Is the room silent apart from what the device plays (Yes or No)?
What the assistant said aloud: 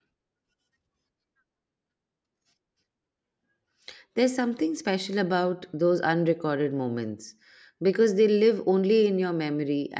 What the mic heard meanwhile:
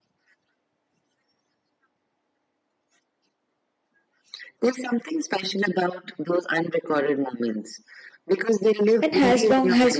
No